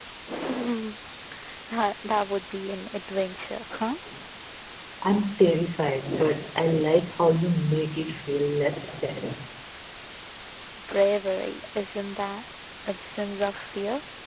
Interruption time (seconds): none

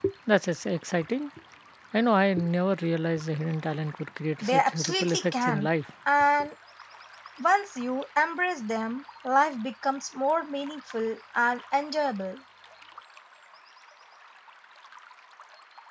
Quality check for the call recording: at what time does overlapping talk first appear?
4.4 s

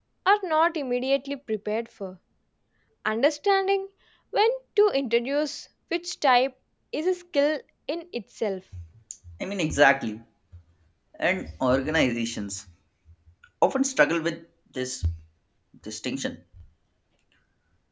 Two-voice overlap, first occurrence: none

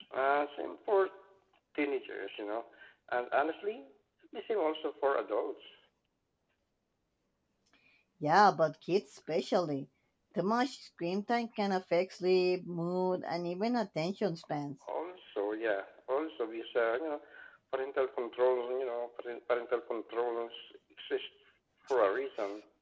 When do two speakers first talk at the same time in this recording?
none

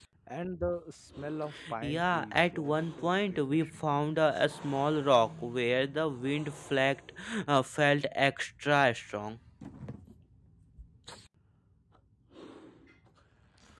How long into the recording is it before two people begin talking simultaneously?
1.8 s

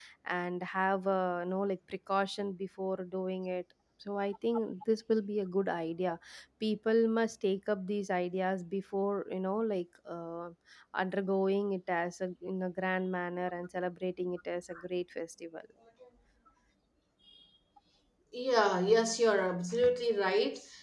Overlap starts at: none

